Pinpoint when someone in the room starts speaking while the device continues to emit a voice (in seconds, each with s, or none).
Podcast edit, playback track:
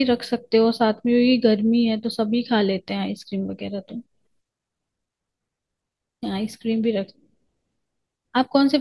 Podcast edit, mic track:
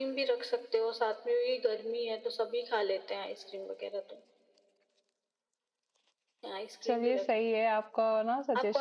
6.8 s